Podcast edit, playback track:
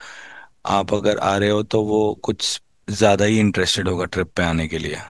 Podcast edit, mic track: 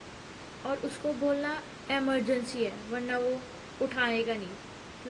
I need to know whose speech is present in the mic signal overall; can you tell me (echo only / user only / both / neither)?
user only